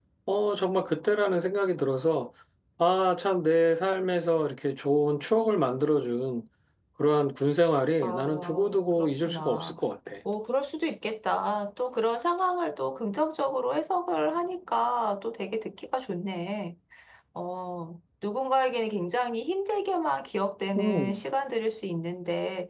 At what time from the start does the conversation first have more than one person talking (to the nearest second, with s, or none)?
8 s